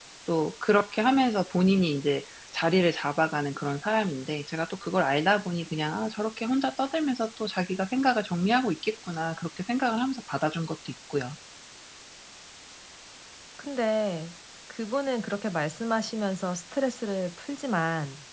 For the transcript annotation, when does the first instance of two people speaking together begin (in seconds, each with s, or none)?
none